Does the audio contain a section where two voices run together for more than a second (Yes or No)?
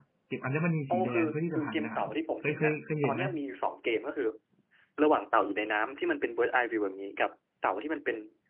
Yes